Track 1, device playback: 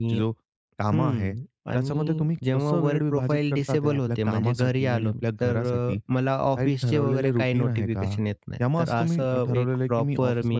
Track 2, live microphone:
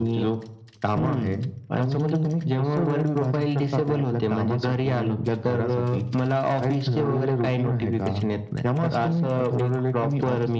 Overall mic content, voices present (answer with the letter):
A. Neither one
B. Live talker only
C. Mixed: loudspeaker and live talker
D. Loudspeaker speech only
D